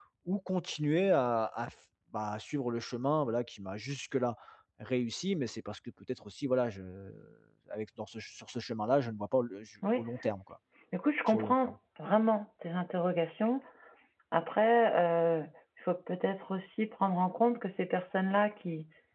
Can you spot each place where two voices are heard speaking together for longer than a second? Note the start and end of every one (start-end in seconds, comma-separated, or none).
none